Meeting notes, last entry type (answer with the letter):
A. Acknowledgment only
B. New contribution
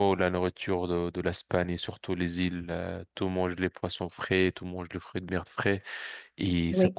A